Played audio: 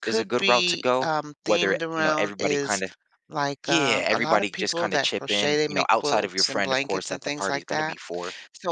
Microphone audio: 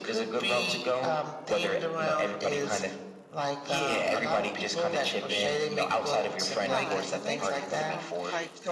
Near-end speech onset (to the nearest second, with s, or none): 7 s